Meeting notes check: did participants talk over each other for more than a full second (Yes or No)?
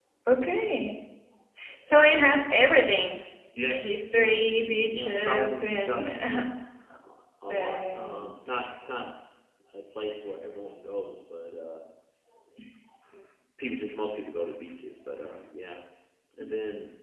Yes